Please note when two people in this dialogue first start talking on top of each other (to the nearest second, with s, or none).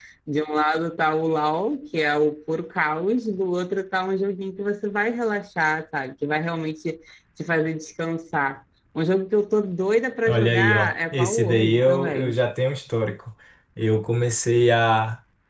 10 s